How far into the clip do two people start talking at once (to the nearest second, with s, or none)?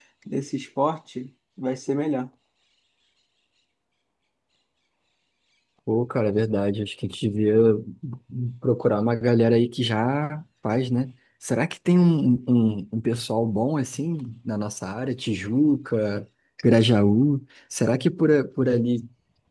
none